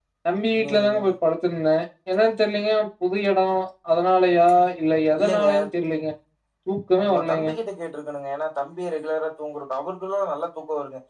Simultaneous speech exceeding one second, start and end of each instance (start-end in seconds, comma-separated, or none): none